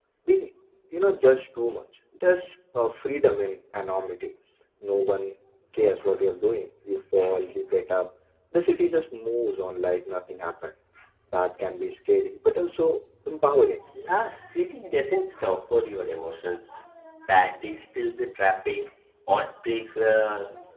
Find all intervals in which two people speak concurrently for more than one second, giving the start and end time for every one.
none

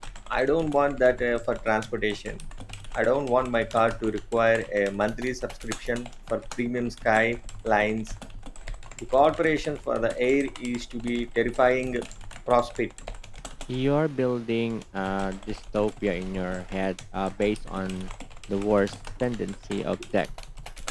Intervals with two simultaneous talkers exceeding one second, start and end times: none

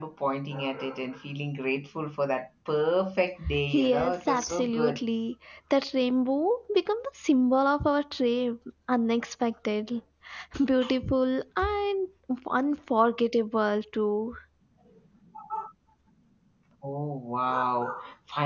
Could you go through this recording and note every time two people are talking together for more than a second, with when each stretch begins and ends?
3.7-5.0

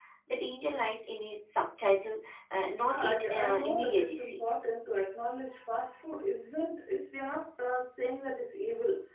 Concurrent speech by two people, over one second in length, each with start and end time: 2.8-4.4

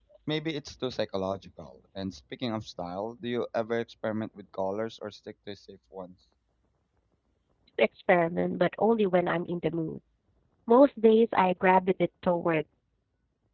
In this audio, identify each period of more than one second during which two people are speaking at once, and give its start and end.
none

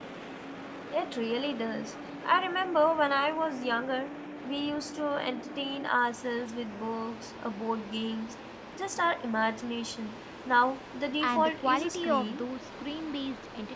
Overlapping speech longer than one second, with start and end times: 11.2-12.4

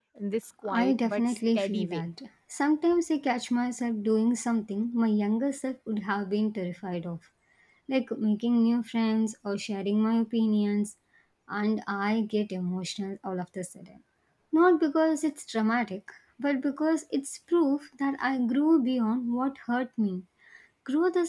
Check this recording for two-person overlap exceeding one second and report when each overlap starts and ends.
0.8-2.1

